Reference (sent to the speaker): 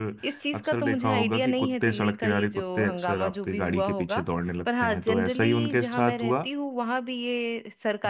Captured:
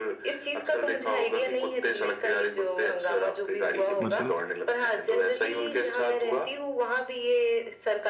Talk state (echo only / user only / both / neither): both